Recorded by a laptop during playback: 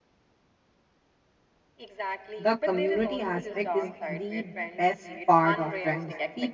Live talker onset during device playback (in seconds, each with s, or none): 2.4 s